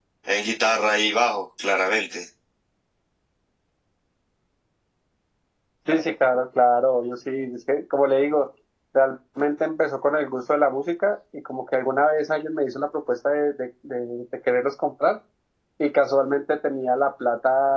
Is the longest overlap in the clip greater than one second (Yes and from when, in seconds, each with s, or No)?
No